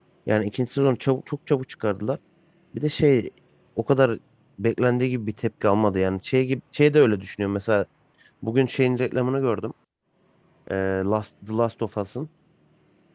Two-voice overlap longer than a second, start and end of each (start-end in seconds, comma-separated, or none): none